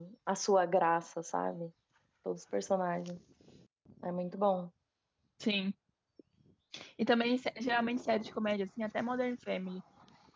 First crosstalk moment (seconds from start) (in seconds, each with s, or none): none